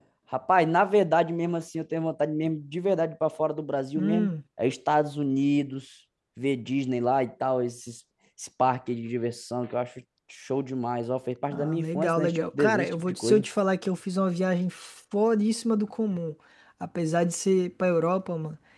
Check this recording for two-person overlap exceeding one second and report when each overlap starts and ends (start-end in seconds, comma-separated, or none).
11.5-13.4